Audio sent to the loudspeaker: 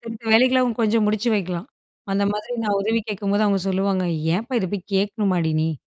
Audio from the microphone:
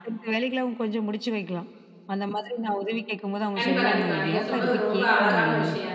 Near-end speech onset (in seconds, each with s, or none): 3.6 s